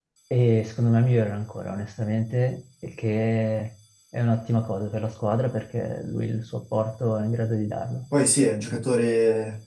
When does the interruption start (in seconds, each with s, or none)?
none